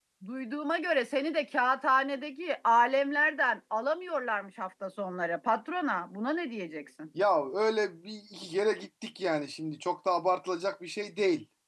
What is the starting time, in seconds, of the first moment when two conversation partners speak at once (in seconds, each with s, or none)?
none